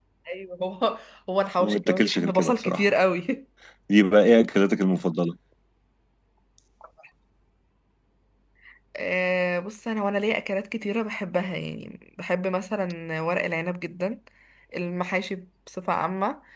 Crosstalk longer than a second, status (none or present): present